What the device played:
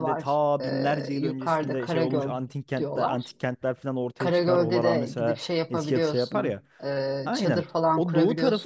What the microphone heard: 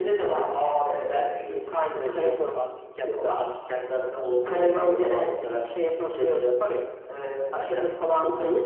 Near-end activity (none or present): none